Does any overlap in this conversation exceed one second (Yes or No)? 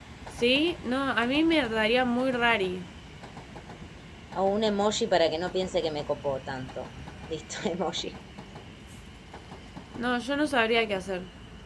No